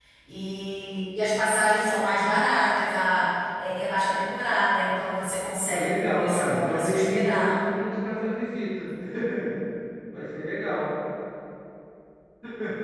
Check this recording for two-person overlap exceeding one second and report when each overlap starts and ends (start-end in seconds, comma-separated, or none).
5.7-7.6